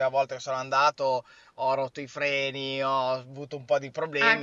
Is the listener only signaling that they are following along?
No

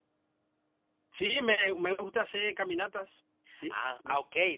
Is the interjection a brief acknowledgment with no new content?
No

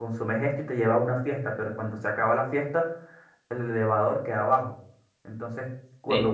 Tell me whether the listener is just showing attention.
No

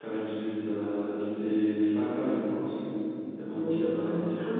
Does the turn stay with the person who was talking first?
No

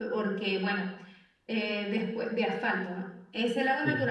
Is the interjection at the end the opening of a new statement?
No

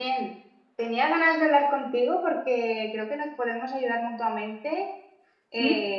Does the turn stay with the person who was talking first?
Yes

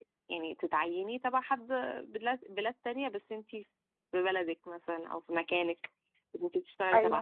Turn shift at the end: No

